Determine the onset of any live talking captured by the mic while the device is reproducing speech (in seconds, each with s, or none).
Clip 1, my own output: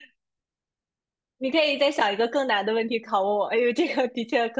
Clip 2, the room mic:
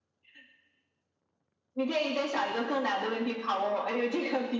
none